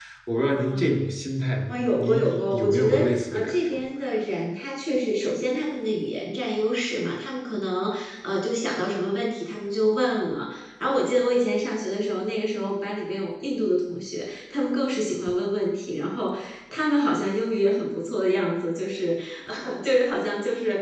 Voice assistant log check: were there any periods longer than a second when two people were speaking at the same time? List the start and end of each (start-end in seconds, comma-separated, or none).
1.7-3.8